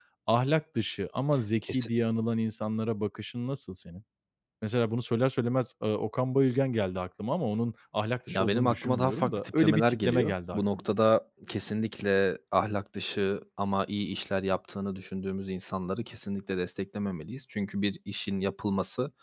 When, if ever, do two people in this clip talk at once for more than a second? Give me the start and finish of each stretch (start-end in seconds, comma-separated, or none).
8.3-10.8